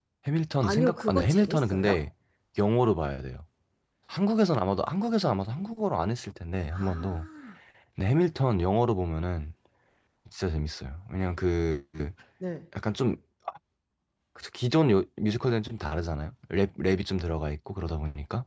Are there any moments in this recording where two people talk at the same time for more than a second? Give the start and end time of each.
0.6-2.0

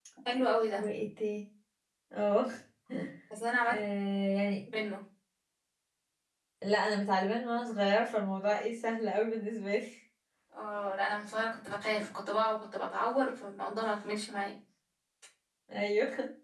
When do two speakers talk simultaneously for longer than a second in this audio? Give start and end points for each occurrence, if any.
none

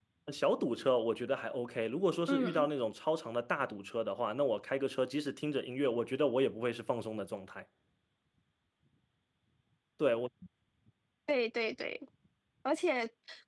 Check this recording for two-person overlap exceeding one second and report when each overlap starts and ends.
none

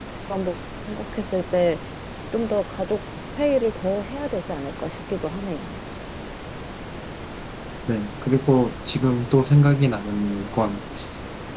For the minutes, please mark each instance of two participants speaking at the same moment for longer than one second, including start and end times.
none

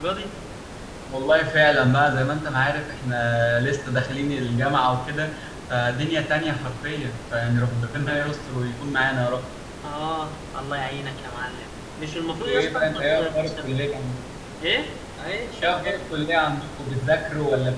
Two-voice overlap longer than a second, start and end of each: 12.4-13.7

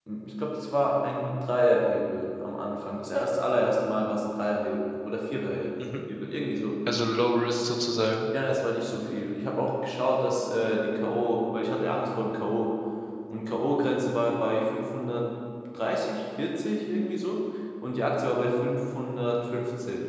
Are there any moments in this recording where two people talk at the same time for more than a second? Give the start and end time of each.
none

